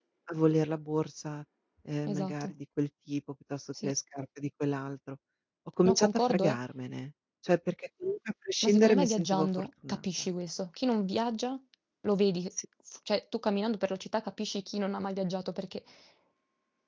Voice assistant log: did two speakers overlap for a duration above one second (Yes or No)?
Yes